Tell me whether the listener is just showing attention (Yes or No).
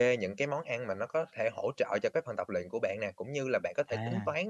Yes